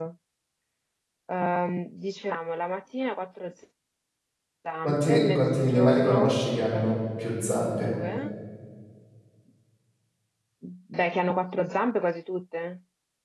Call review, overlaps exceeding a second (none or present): present